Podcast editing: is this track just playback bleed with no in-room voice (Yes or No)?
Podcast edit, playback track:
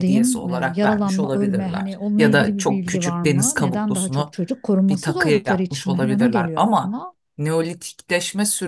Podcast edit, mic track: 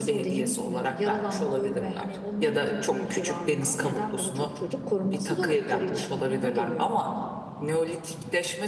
Yes